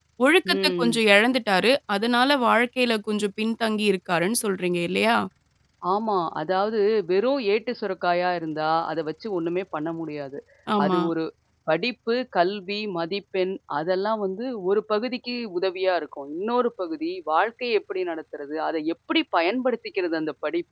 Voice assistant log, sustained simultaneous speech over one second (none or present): none